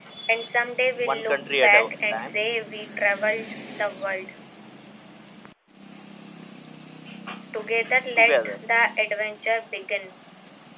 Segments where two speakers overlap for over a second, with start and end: 1.0-2.4

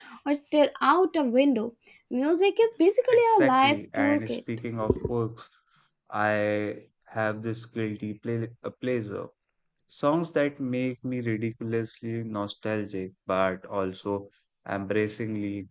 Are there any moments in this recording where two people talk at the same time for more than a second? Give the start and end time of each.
3.1-4.4

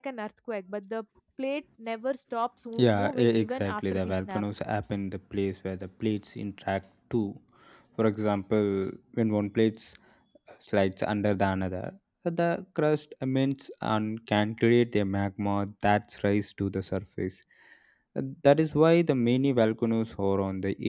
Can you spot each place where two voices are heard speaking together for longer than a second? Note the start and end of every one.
2.8-4.4

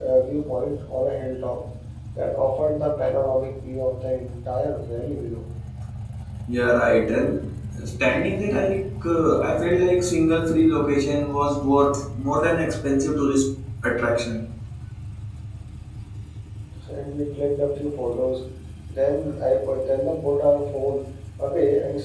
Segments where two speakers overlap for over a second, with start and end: none

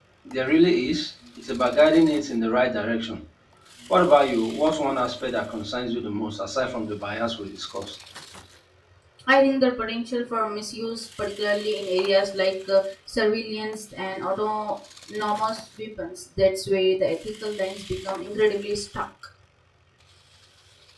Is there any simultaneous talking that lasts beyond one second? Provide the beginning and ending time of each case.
none

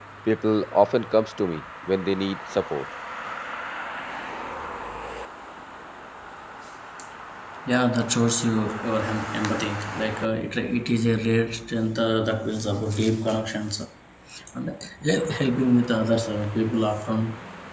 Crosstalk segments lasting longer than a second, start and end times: none

